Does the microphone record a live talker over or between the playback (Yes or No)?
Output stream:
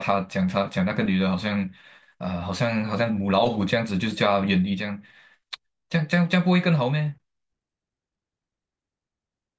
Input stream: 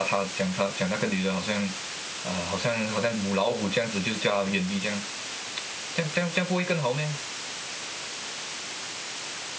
No